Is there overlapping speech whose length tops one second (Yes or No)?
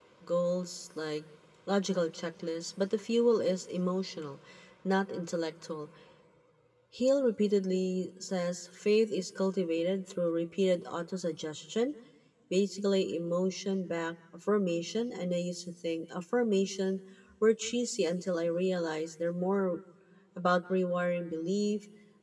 No